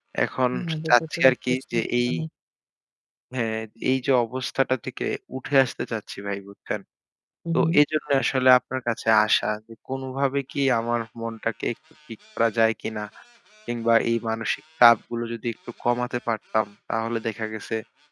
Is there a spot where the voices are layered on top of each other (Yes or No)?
Yes